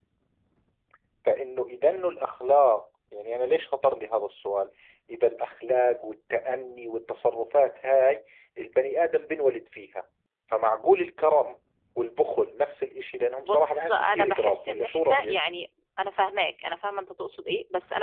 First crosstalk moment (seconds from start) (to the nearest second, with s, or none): 13 s